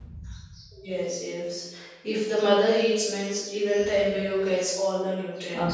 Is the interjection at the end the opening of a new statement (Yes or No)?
Yes